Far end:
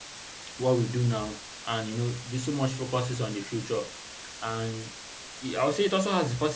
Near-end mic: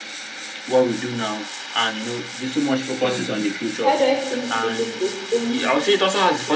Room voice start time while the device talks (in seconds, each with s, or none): 3.0 s